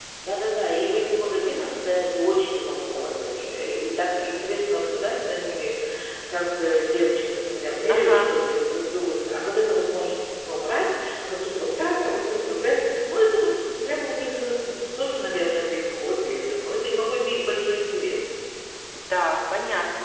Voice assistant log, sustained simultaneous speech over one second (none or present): none